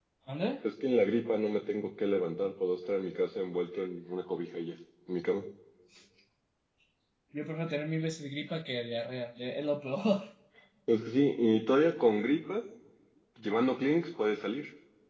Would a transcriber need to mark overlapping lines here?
No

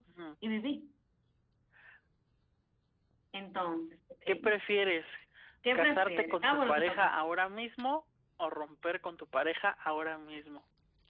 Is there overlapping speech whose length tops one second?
Yes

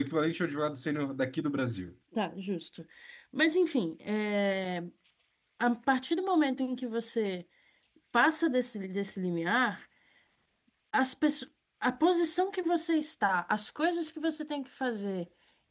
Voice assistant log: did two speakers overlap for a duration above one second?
No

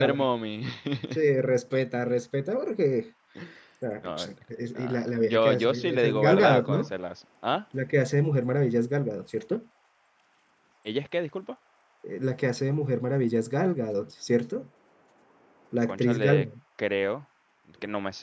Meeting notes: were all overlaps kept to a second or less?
No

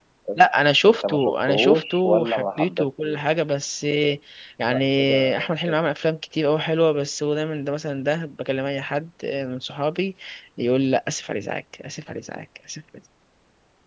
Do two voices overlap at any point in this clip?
Yes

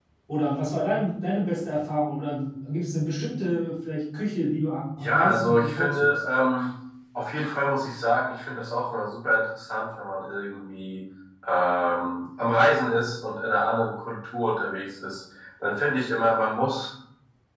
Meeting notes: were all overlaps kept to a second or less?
No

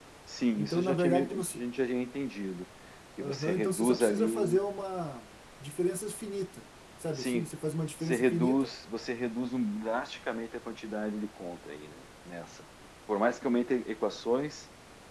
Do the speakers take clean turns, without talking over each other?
No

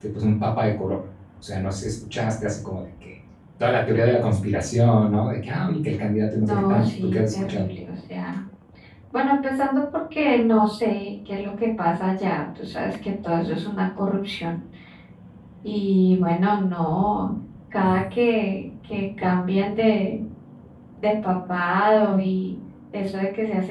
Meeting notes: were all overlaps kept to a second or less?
No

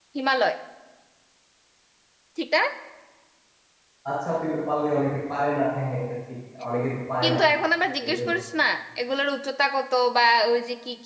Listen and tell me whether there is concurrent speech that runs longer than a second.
No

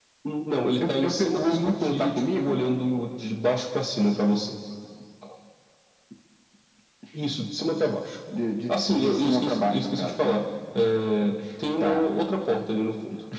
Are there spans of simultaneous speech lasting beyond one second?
Yes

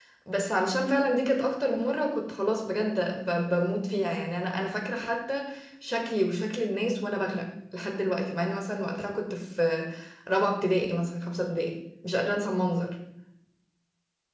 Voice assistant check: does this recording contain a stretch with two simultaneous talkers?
No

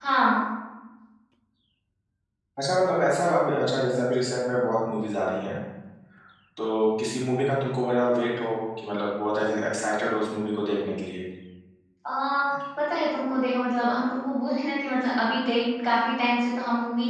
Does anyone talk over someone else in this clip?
No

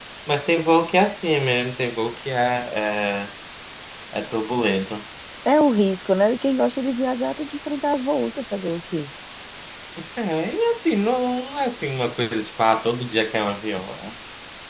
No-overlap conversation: Yes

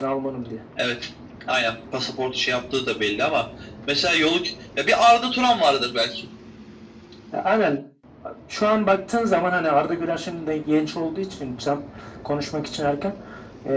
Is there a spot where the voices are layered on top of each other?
No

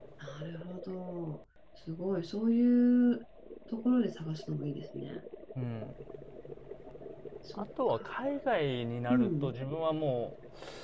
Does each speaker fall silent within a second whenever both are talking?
Yes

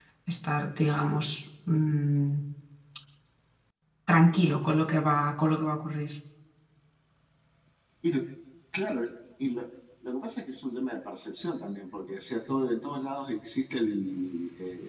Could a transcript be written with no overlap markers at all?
Yes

